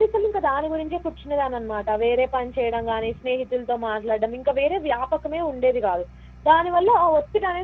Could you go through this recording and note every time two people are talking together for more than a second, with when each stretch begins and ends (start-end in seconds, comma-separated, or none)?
none